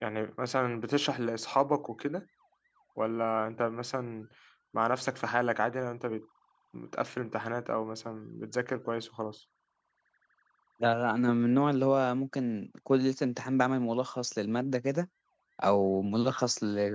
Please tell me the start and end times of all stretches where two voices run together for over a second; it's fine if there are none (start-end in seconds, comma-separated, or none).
none